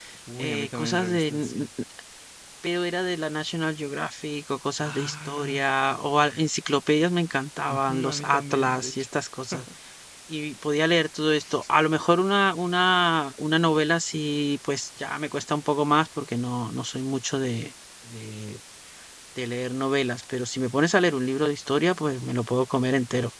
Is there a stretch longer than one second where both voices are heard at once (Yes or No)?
Yes